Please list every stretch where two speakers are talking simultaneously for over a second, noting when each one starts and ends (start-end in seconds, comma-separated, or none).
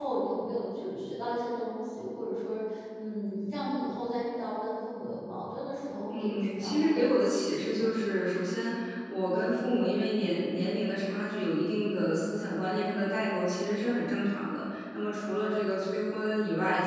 6.2-7.9